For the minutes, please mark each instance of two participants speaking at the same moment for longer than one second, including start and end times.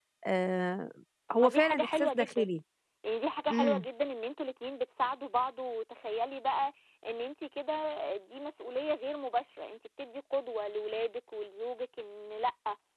1.3-2.5

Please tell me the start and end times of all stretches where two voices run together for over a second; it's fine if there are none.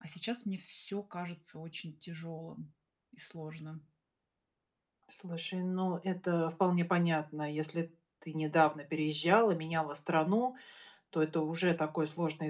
none

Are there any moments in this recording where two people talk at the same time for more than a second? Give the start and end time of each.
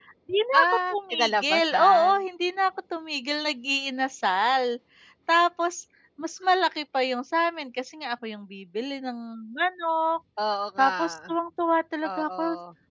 0.6-2.2

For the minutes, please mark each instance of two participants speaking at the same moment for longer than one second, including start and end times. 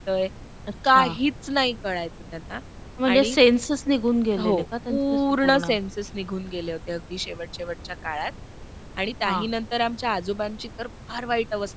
4.4-5.7

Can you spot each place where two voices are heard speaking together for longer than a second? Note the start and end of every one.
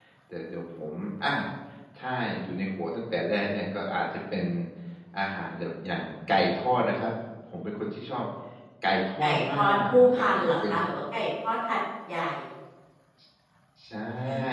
9.2-10.7

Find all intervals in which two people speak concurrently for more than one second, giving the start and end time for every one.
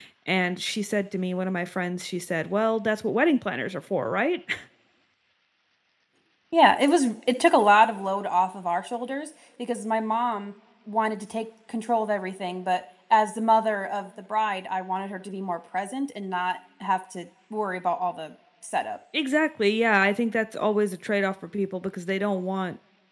none

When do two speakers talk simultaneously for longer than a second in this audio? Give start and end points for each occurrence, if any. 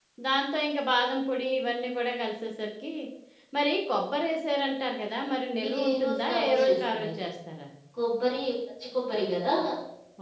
5.7-7.2

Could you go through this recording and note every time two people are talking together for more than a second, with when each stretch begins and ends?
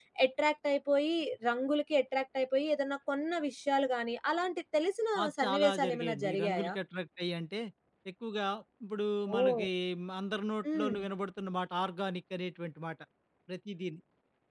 5.2-6.8

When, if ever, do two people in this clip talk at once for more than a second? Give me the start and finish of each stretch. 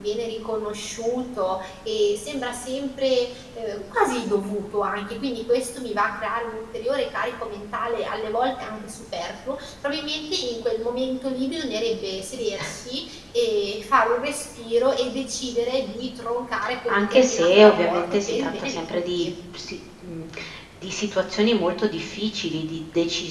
16.9-19.3

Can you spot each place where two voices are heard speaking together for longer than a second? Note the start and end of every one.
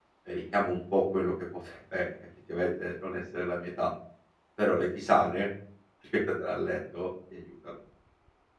none

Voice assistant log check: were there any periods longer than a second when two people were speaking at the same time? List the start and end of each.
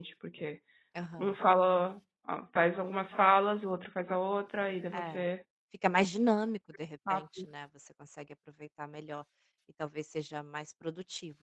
none

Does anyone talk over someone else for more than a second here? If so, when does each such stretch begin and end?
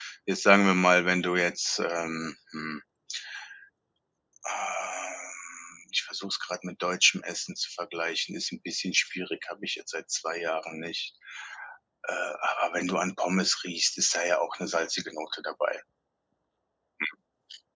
none

